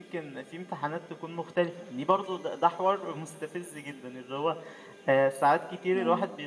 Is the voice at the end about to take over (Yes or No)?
No